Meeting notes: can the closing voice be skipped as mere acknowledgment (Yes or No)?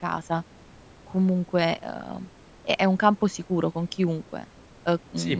No